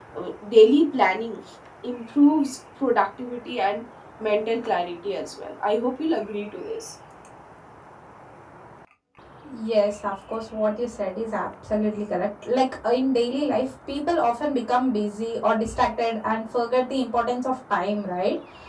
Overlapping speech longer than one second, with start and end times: none

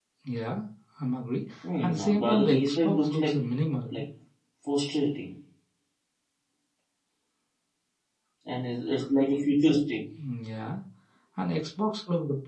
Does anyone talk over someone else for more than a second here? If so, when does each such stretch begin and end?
1.8-3.4

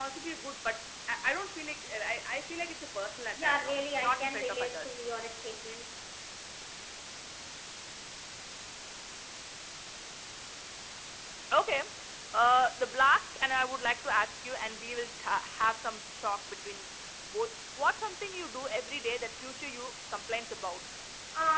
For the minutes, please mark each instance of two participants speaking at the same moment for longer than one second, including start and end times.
3.4-5.0

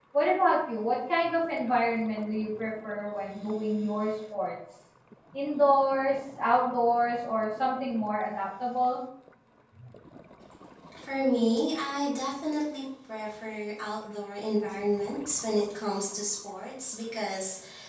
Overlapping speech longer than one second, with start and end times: none

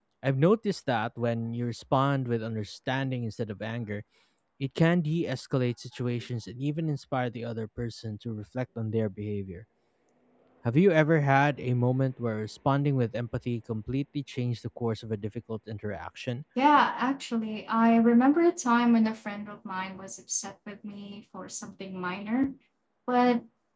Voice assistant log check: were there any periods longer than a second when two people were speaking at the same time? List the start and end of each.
none

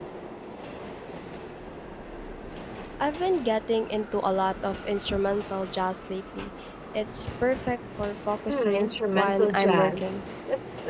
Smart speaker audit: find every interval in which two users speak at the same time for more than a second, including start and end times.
8.5-10.1

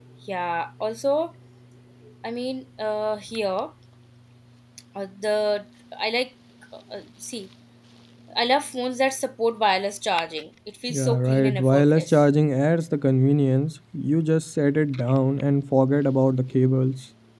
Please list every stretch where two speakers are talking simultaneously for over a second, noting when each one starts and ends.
10.9-12.2

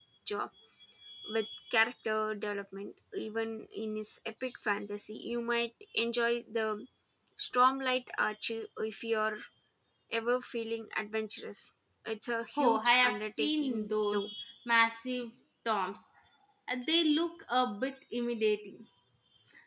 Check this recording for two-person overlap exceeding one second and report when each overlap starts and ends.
12.6-14.3

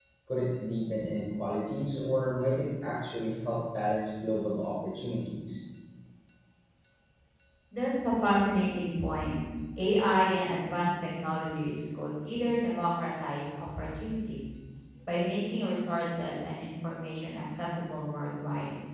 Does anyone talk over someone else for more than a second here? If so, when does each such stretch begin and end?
none

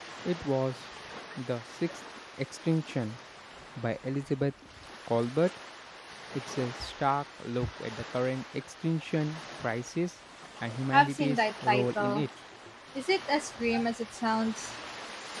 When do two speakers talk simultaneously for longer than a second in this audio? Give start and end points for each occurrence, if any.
10.9-12.3

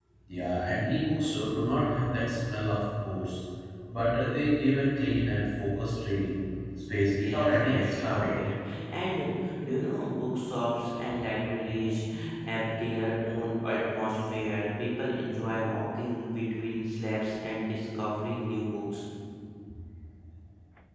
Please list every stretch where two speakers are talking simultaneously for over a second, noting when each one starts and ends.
7.2-8.4

